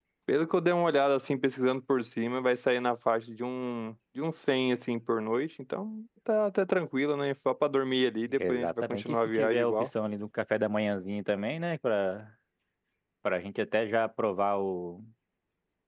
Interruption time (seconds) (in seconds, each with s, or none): 8.3 s